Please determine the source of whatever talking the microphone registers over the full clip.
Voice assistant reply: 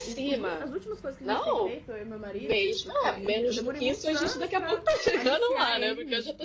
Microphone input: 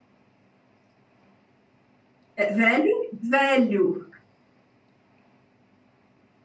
user only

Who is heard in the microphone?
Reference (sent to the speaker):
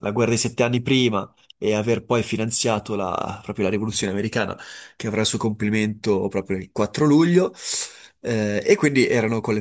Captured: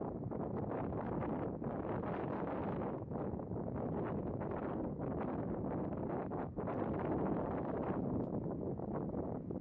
neither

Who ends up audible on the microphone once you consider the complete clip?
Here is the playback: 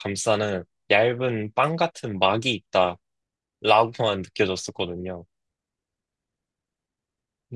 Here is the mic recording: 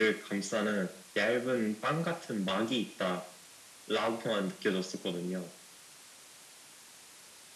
echo only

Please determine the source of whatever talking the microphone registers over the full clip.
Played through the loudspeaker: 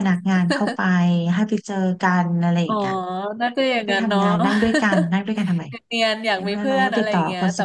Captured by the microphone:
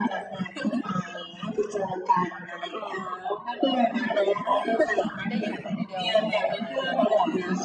both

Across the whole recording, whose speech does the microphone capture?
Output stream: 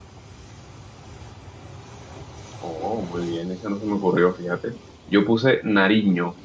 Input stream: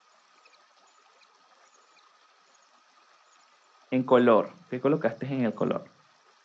user only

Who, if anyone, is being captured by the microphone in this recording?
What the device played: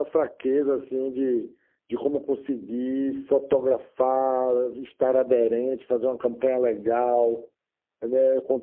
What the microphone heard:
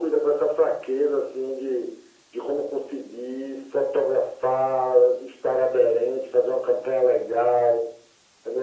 echo only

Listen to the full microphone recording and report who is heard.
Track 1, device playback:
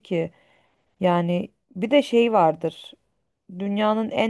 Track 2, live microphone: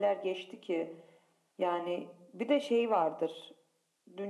echo only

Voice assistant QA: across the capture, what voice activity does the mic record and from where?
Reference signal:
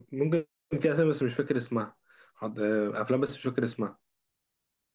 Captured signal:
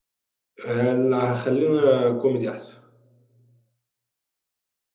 user only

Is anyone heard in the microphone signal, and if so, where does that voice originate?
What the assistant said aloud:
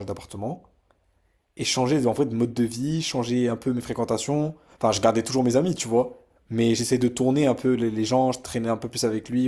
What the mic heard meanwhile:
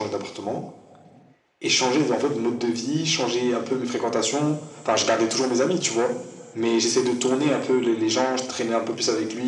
echo only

